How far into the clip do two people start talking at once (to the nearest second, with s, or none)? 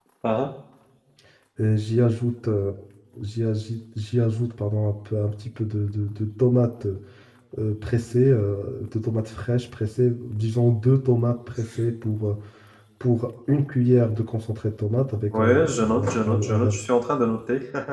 15 s